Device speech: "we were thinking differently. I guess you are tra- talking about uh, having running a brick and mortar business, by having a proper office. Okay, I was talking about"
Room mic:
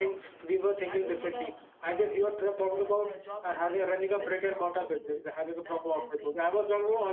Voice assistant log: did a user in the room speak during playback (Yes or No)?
Yes